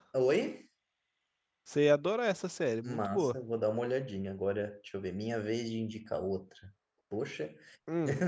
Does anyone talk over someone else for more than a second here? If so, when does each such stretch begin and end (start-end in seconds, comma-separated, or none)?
none